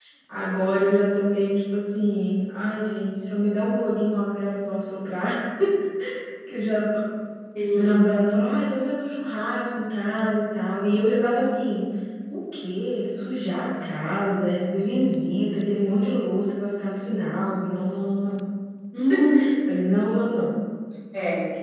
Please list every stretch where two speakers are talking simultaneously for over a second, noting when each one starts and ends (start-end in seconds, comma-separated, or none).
none